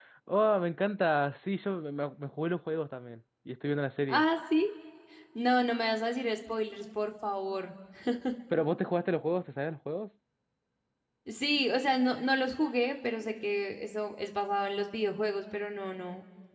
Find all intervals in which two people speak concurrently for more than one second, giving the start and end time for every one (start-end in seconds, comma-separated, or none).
none